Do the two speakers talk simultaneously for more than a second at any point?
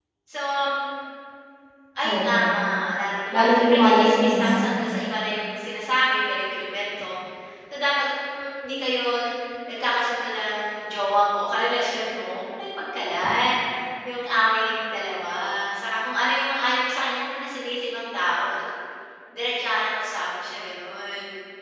Yes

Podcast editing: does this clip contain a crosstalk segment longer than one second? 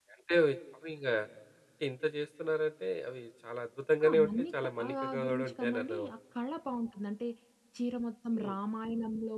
Yes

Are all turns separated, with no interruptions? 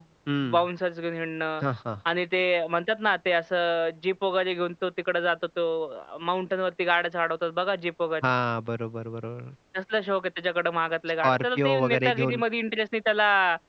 No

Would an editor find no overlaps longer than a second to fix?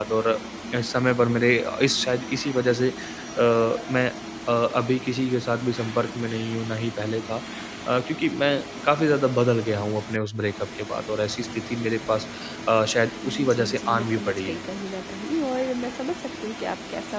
No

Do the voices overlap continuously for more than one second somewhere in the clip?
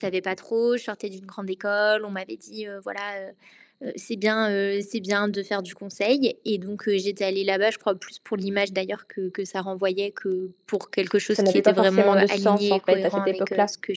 Yes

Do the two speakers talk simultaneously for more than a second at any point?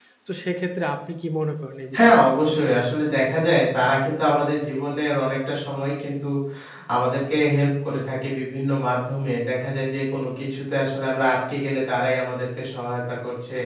No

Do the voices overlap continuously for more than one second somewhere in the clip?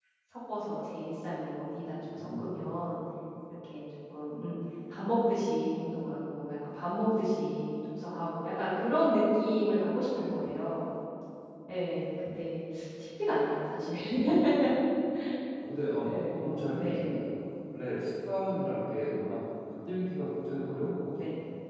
Yes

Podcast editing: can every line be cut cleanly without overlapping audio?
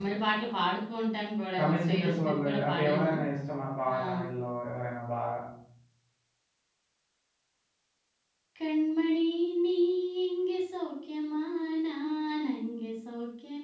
No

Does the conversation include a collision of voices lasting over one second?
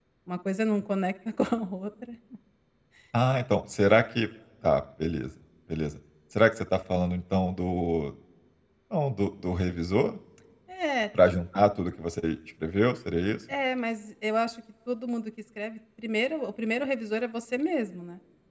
No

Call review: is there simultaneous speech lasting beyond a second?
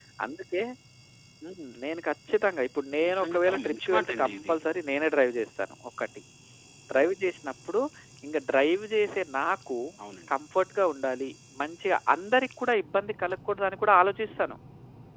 Yes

